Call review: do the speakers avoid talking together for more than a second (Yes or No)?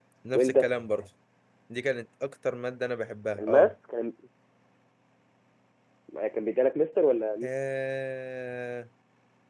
Yes